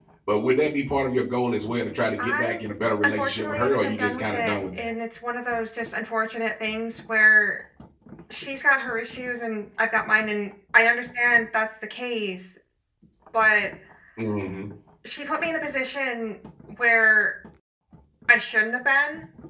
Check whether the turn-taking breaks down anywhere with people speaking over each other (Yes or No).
Yes